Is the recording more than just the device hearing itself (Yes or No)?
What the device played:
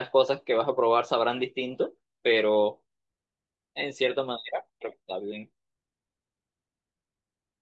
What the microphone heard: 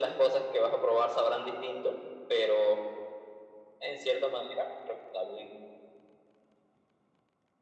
No